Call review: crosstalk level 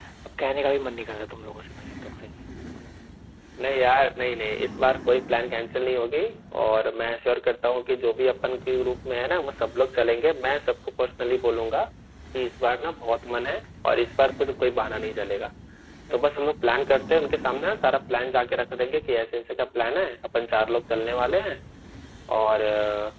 none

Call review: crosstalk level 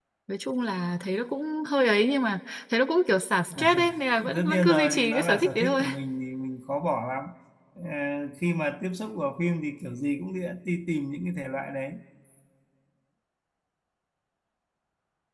present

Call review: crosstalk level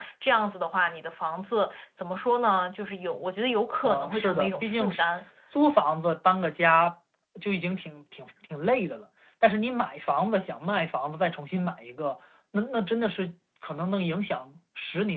present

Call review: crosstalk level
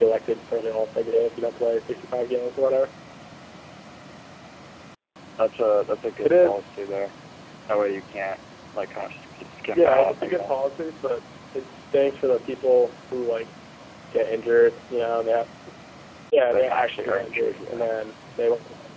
present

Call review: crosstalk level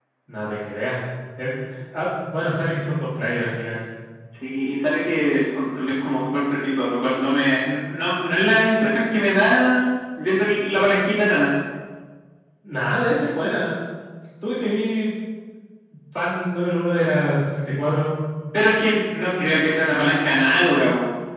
none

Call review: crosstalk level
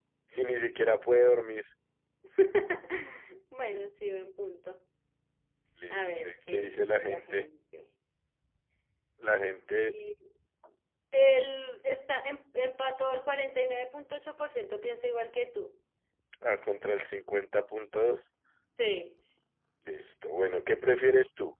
present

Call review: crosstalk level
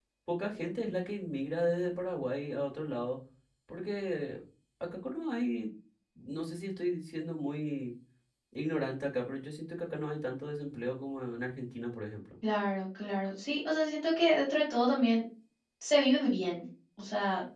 none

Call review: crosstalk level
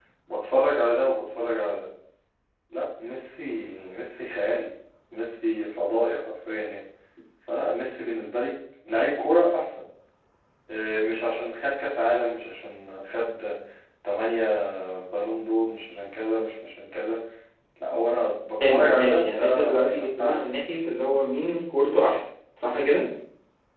present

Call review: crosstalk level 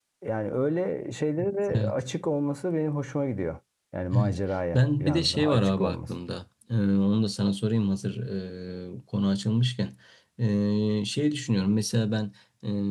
present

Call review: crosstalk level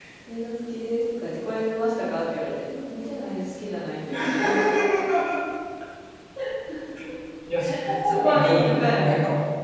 present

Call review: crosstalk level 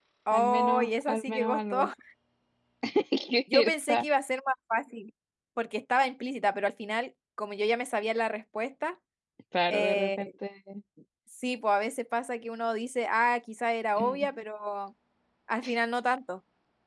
present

